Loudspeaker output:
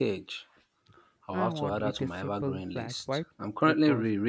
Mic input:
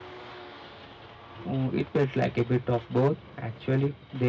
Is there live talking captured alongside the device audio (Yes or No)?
Yes